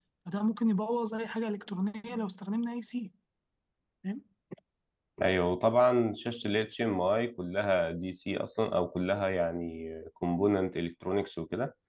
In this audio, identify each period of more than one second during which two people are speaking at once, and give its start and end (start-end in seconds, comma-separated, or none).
none